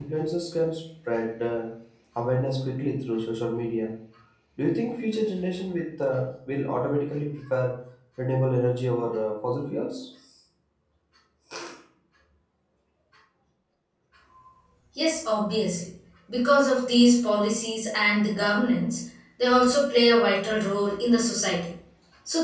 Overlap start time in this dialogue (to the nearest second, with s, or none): none